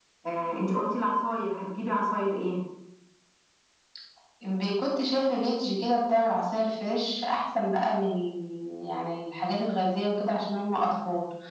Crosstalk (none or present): none